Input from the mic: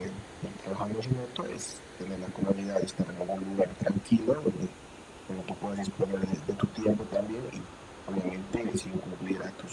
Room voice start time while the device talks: none

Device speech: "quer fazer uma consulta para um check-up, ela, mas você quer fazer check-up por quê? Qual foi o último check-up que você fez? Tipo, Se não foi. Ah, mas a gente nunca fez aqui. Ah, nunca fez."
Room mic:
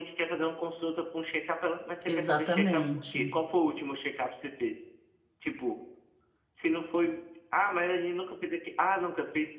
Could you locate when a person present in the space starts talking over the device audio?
2 s

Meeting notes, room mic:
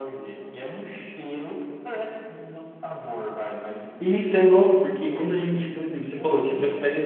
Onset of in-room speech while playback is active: 4 s

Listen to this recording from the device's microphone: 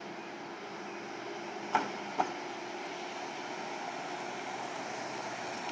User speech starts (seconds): none

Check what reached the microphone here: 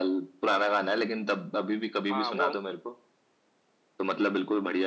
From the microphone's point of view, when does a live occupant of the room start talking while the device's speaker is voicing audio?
2 s

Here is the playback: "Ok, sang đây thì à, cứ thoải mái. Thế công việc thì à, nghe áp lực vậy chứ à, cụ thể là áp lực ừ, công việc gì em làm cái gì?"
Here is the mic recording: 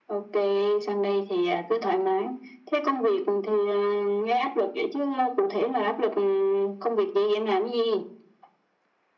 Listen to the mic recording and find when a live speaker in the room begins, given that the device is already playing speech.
none

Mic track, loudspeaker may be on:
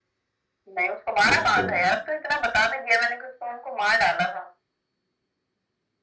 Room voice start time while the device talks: 1 s

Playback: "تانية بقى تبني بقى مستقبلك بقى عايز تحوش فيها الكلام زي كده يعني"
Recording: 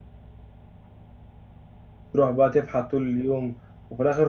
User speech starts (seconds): 2 s

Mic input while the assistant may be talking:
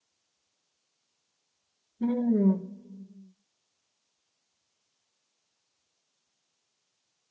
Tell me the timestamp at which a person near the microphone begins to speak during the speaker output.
2 s

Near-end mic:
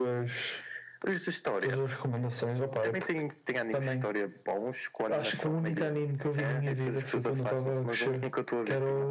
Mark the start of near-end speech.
none

